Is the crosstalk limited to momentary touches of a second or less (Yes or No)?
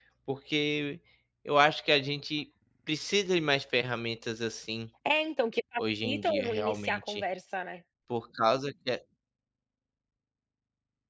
No